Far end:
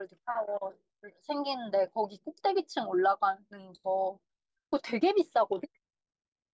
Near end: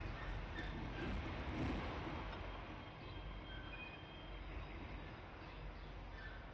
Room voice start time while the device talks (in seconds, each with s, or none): none